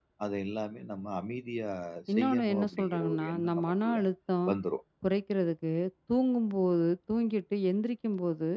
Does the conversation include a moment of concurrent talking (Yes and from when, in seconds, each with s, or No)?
Yes, from 2.1 s